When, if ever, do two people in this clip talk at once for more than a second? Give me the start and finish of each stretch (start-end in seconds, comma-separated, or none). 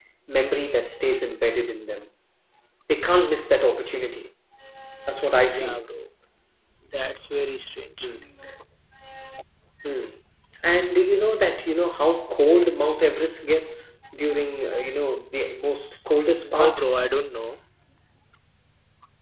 none